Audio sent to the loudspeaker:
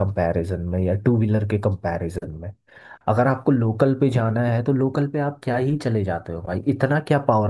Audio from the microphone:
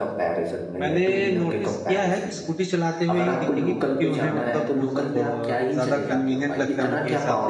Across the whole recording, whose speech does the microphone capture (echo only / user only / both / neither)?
both